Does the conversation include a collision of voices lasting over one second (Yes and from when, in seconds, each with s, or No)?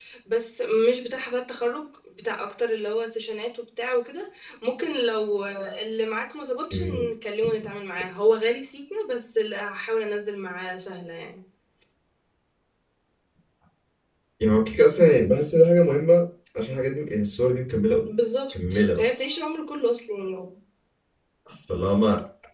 No